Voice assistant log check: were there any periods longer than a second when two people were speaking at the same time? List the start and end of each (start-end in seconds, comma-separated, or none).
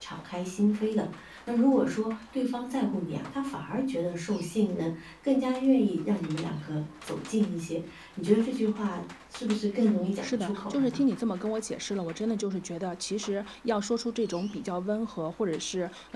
9.8-11.0